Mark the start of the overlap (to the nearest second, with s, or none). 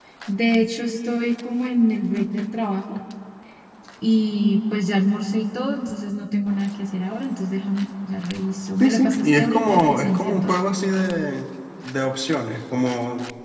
9 s